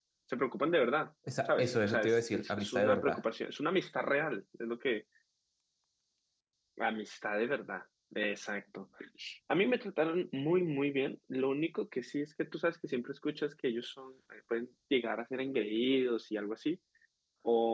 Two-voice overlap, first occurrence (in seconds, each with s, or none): 1.3 s